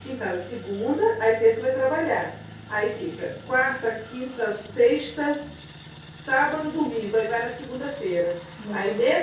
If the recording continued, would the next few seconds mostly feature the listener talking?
No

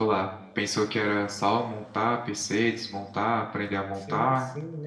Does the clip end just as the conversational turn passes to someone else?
Yes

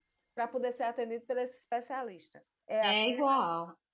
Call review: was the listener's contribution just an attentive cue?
No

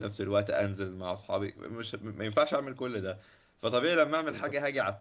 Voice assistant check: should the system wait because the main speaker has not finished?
Yes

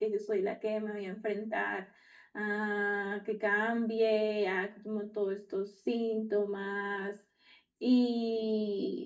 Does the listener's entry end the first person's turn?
No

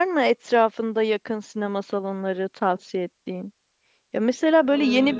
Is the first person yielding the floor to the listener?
No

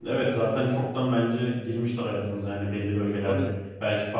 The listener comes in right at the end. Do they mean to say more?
No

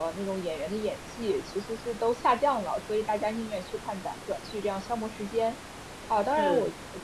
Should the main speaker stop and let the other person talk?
No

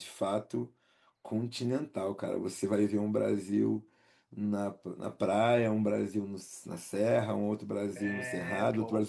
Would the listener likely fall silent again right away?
Yes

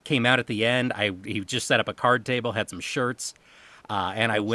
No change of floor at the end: Yes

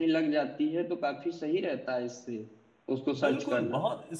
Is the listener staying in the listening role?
No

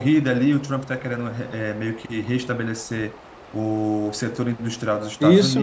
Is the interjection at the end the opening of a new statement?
Yes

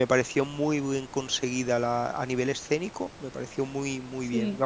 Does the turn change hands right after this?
No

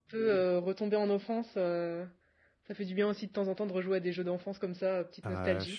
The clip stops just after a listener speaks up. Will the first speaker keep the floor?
No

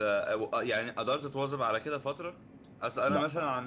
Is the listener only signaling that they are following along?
Yes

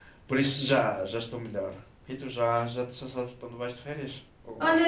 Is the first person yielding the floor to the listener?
Yes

